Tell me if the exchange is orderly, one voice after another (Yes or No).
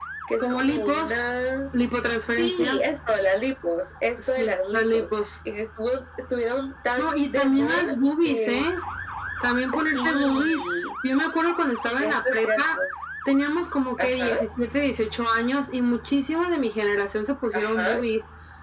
No